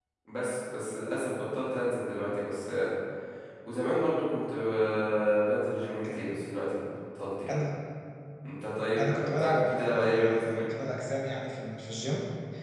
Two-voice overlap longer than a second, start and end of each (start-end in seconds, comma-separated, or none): 9.0-10.6